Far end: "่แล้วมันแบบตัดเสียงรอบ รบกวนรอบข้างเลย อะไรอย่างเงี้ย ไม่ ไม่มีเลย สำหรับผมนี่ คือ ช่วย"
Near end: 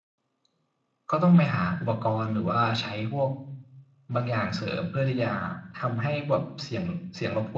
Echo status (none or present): none